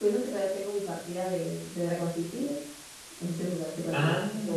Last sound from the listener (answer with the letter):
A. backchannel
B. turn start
B